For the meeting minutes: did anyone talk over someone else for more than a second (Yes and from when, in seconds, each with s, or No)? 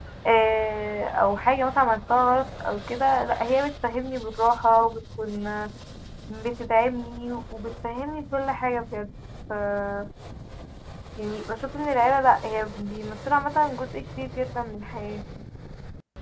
No